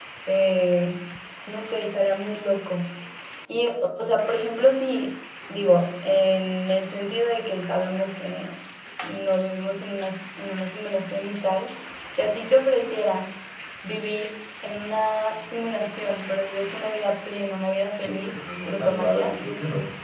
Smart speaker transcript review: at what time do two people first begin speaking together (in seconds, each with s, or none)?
18.0 s